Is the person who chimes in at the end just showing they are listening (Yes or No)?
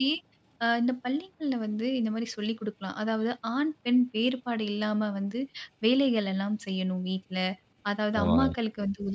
Yes